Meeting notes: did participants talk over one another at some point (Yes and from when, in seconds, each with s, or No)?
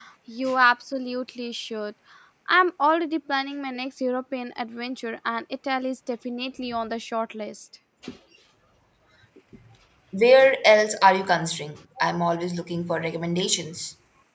No